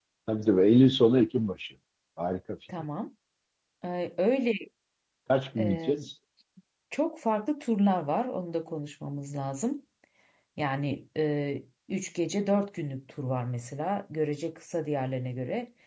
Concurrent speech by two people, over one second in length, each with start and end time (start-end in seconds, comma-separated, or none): none